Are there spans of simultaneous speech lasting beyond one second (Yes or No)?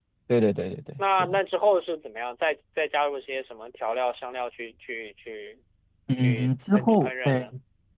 Yes